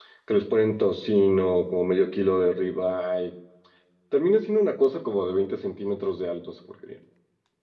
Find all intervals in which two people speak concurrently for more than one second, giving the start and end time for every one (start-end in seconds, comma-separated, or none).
none